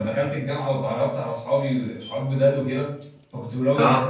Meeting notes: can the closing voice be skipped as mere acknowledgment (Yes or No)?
Yes